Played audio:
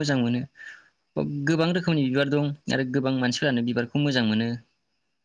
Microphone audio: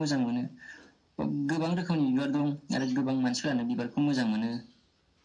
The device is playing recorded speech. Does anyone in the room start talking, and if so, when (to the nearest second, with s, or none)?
none